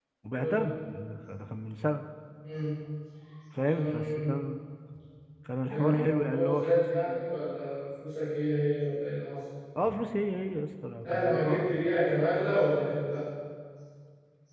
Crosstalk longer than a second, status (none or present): present